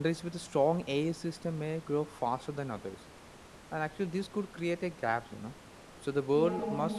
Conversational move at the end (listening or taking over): listening